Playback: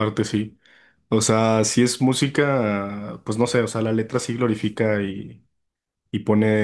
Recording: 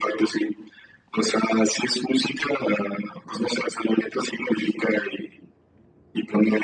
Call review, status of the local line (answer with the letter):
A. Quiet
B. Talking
A